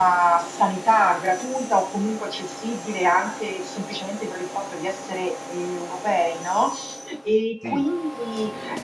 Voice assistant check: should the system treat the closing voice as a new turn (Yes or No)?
No